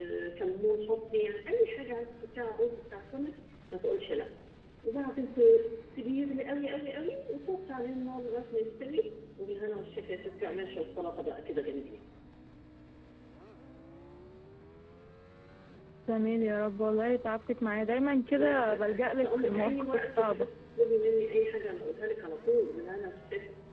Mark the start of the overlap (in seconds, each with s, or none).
18.3 s